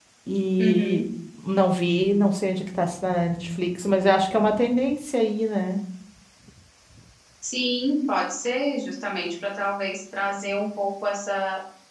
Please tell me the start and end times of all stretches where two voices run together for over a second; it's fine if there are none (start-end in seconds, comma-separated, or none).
none